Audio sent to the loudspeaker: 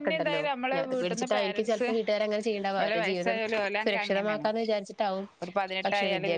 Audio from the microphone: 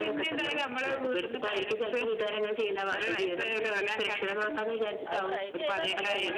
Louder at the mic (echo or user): echo